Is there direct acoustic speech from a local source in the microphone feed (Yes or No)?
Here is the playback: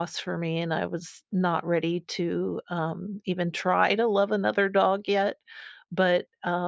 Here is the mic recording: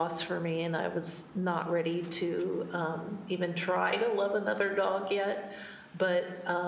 No